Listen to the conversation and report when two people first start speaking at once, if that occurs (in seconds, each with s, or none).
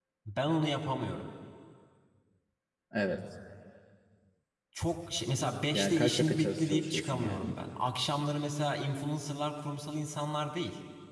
5.7 s